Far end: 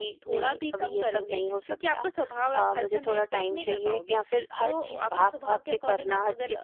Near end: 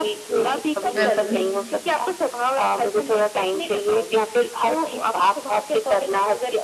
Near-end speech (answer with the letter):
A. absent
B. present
B